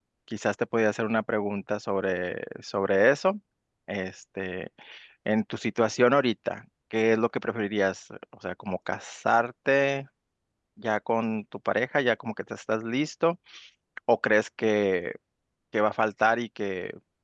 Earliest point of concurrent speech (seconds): none

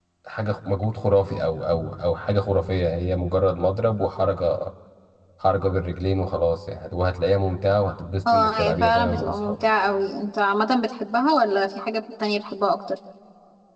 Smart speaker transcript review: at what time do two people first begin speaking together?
8.2 s

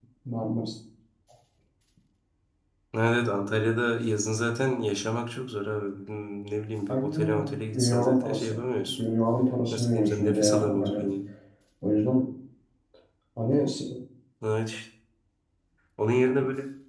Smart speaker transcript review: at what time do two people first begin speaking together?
6.9 s

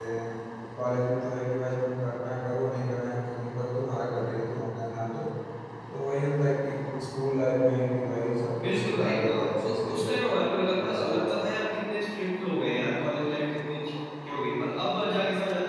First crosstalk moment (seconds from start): 8.6 s

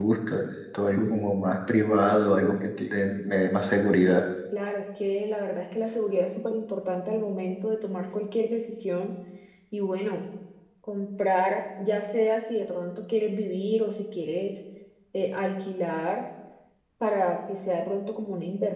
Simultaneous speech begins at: none

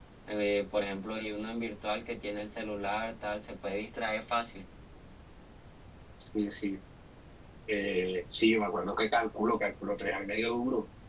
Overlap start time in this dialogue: none

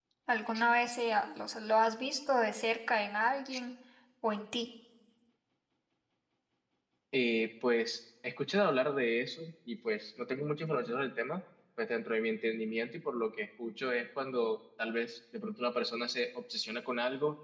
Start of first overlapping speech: none

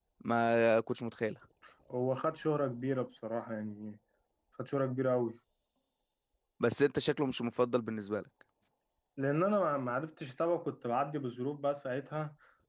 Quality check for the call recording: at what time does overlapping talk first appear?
none

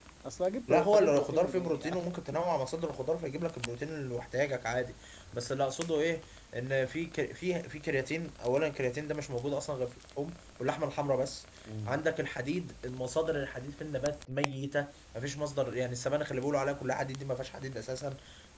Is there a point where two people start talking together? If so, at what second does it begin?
0.7 s

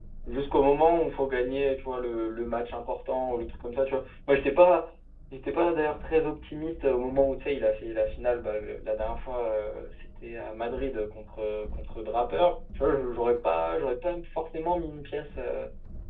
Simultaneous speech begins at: none

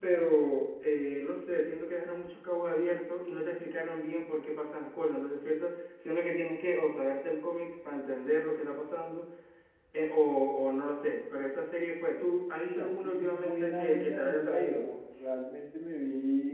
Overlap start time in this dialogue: 12.5 s

